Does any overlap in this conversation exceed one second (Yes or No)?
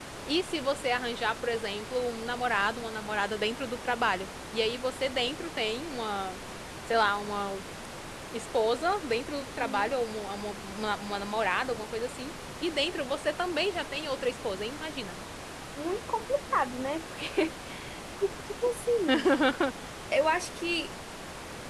No